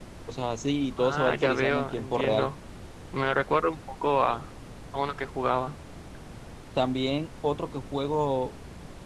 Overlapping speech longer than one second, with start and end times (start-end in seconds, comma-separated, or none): 1.0-2.5